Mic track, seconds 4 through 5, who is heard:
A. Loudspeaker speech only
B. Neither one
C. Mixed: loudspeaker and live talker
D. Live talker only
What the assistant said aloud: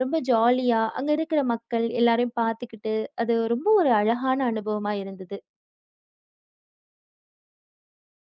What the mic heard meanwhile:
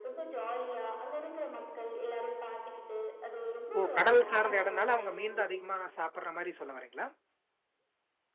C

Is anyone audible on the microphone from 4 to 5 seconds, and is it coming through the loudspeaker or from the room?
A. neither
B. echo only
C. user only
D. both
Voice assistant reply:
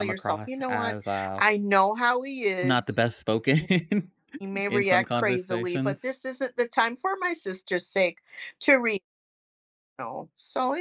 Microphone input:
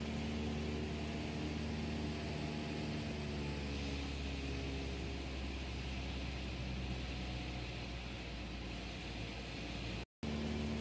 A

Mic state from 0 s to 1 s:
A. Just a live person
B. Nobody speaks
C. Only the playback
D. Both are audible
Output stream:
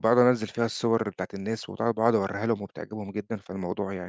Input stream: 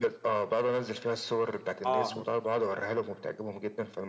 C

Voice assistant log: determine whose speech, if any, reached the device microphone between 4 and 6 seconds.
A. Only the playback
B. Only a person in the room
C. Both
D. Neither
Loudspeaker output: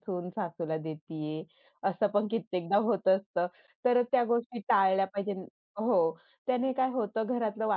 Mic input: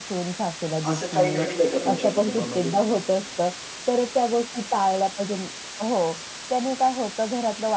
A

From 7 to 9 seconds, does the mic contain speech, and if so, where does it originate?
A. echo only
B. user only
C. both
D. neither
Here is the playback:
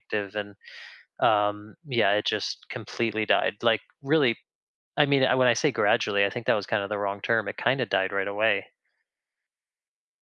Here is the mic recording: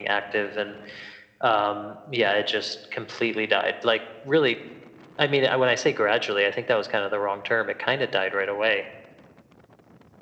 A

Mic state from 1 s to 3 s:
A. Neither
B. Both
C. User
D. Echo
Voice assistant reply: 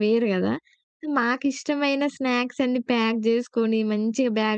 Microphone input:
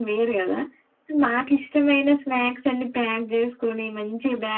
D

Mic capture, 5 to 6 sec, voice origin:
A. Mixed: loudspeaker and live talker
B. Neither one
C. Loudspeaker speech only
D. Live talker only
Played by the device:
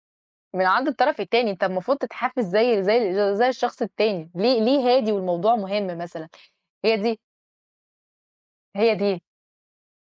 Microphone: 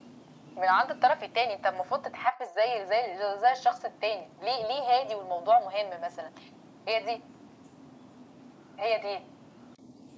C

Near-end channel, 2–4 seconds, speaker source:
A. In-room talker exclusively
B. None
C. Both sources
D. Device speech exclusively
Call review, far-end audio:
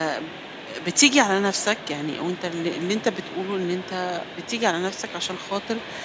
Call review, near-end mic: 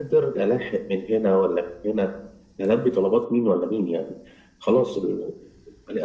A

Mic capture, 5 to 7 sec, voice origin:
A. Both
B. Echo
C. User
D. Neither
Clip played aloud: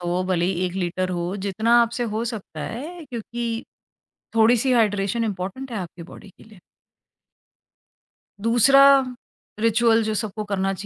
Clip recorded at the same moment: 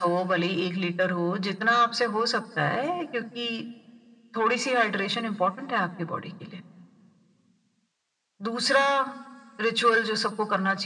B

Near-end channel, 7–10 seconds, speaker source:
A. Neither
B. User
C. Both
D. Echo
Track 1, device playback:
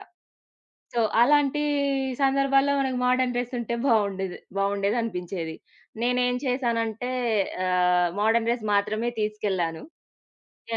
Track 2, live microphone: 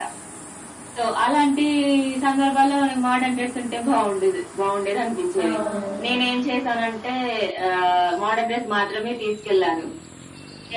D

